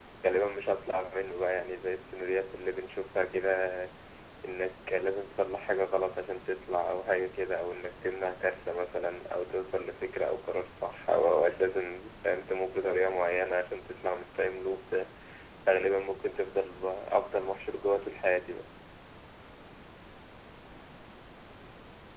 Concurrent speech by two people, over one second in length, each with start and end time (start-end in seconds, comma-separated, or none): none